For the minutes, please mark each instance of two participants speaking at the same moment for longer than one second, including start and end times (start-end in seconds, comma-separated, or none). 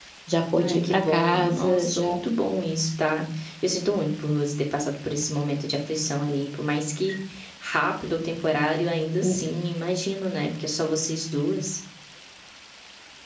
0.6-2.1